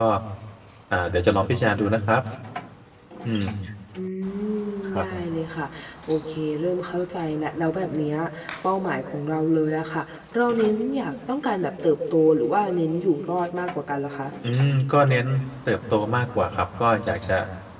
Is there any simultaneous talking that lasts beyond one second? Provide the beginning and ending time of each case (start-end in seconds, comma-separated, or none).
none